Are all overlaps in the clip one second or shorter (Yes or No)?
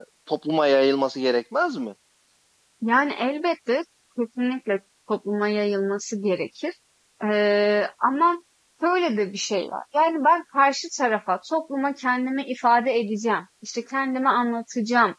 Yes